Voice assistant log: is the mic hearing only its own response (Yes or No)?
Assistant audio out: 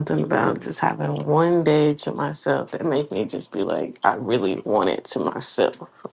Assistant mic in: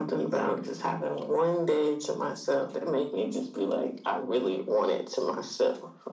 Yes